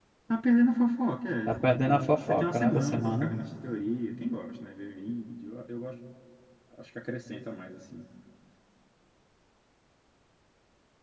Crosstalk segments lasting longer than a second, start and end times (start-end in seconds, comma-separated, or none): 1.5-3.3